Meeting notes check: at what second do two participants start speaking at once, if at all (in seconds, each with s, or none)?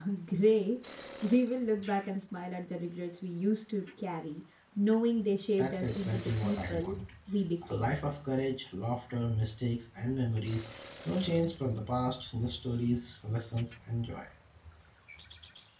5.6 s